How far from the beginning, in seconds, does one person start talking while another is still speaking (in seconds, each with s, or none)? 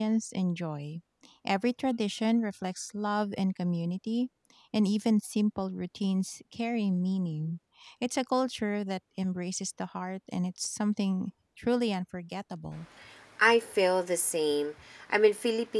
none